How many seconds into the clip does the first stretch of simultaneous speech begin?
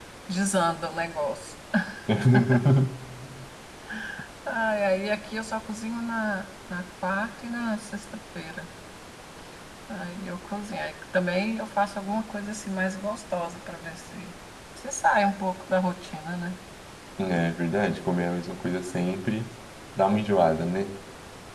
none

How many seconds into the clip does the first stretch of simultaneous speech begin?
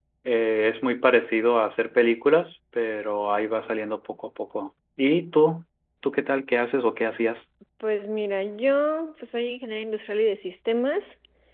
none

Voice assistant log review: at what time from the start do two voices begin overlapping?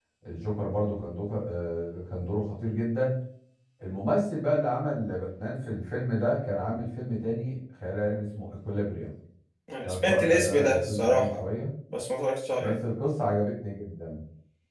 9.8 s

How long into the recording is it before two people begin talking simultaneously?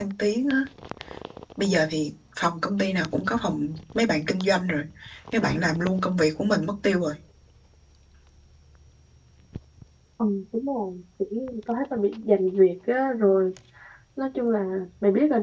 none

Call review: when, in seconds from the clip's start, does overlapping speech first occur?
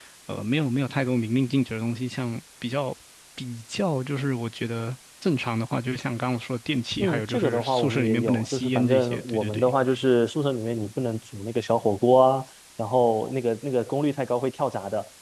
7.0 s

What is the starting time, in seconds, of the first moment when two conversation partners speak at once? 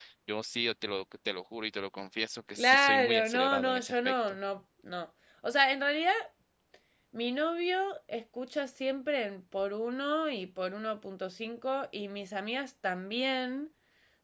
2.6 s

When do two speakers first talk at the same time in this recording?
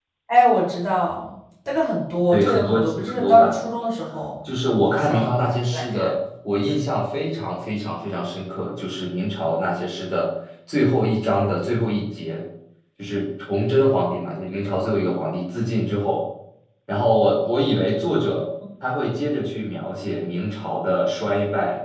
2.3 s

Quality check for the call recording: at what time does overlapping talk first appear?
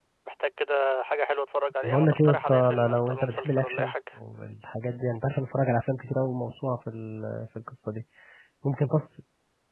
1.8 s

